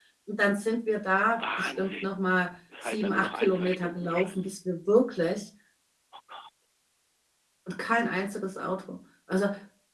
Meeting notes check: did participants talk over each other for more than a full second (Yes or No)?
Yes